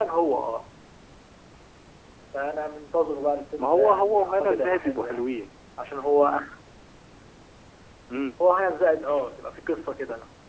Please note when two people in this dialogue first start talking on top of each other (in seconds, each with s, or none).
3.6 s